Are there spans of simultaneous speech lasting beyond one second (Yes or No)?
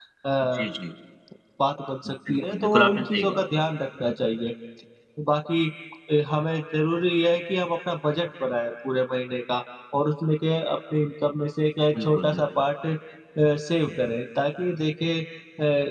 Yes